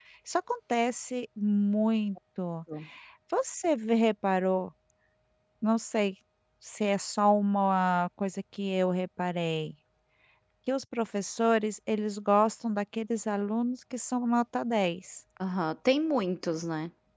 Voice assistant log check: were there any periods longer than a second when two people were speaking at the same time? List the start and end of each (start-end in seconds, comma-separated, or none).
none